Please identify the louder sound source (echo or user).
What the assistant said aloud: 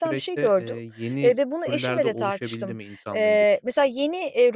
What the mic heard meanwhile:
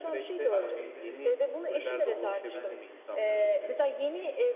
echo